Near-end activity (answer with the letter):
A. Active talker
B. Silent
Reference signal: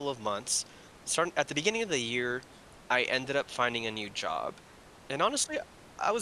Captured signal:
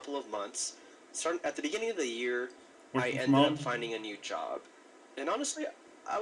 A